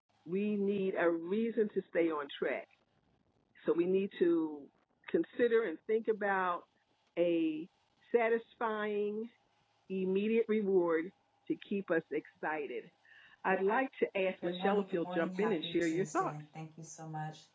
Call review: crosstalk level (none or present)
present